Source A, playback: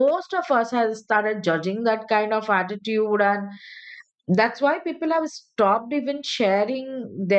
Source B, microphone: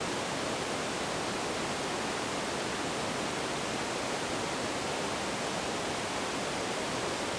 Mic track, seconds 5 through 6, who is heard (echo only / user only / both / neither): neither